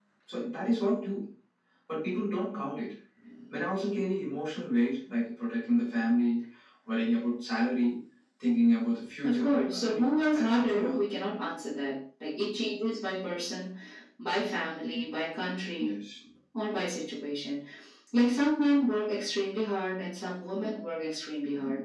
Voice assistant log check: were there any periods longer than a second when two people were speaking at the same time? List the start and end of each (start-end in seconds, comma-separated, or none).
9.2-11.0